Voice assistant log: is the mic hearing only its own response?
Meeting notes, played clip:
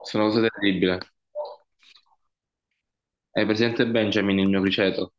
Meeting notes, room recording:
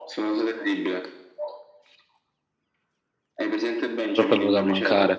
No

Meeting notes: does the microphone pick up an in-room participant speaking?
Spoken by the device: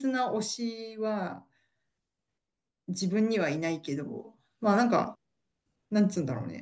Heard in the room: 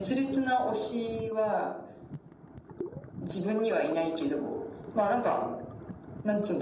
No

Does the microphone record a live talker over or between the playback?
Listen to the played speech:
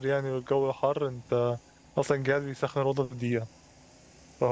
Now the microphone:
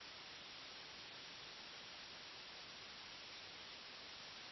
No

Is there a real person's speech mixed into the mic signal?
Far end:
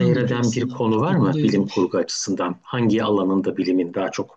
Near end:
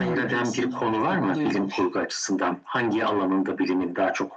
No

